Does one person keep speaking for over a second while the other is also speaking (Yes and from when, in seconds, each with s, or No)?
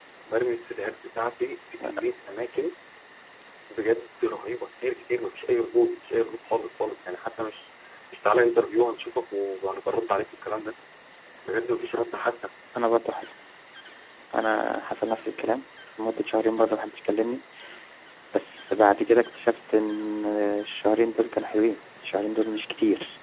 No